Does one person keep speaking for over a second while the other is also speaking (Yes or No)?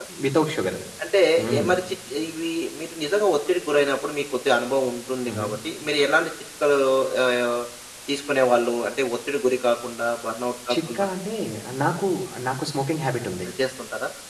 No